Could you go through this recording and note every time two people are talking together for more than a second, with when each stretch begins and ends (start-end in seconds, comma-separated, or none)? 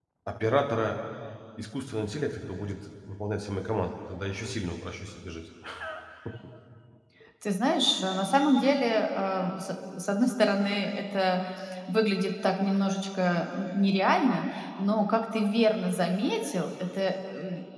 none